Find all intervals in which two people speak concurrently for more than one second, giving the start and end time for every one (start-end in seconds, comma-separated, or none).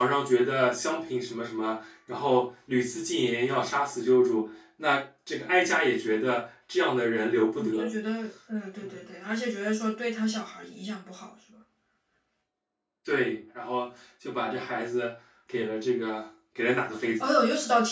none